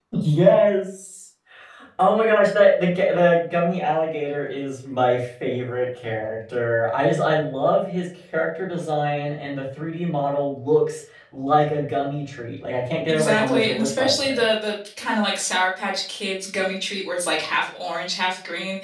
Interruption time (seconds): 13.1 s

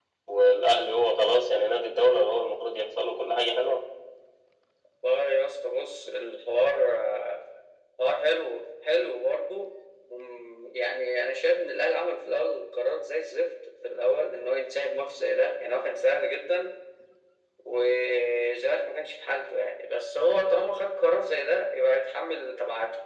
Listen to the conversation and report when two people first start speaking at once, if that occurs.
none

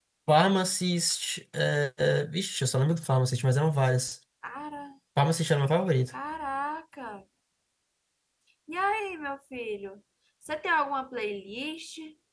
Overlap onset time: none

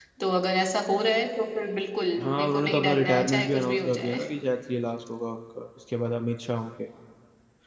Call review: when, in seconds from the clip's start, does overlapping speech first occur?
2.2 s

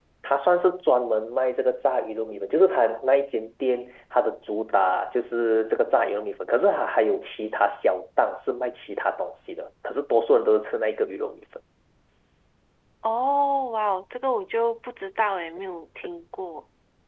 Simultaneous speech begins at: none

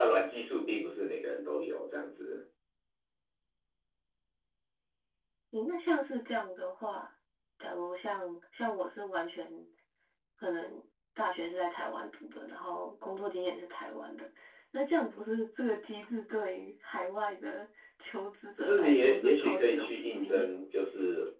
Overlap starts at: 18.6 s

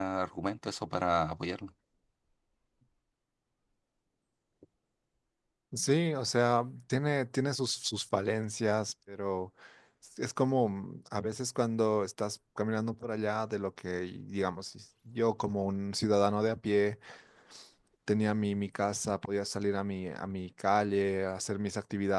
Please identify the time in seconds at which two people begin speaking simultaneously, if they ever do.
none

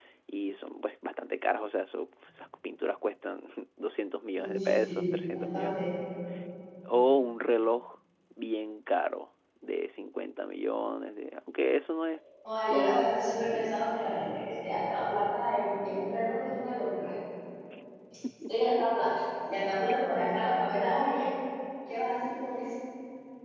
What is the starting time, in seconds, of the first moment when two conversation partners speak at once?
4.3 s

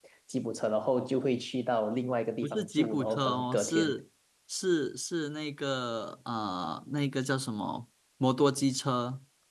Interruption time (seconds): 2.4 s

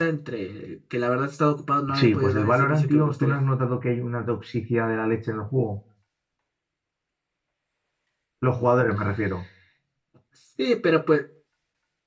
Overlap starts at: 1.9 s

